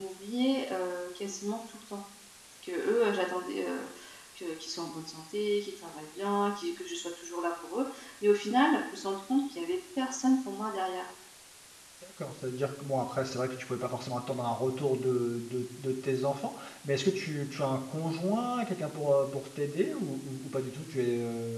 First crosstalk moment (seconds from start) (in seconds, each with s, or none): none